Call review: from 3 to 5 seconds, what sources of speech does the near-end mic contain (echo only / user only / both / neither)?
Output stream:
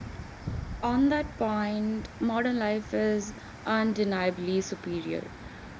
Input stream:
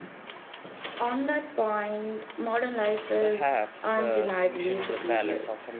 both